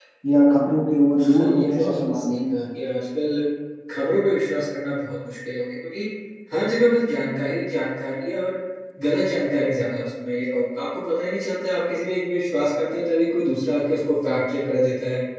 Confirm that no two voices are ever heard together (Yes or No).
No